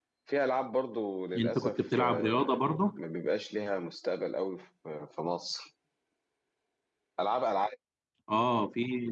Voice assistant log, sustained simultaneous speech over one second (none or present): present